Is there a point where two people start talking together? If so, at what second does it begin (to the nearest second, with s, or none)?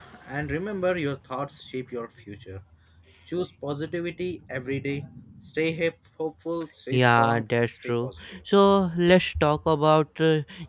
7 s